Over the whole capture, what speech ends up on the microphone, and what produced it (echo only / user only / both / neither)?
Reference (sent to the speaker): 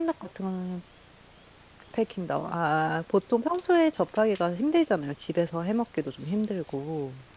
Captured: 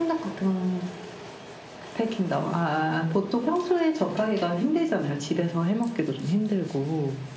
echo only